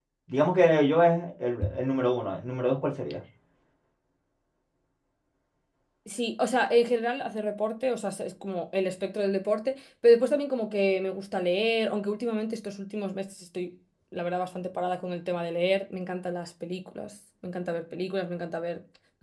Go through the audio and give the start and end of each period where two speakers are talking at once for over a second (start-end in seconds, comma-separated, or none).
none